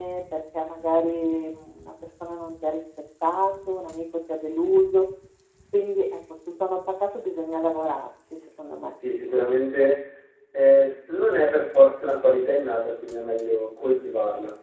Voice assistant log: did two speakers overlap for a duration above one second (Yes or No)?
No